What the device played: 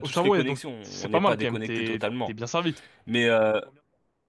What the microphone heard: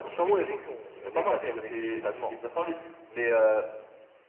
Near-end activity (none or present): none